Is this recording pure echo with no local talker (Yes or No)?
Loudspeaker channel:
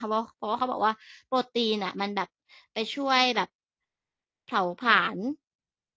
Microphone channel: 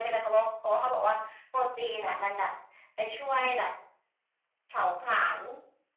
Yes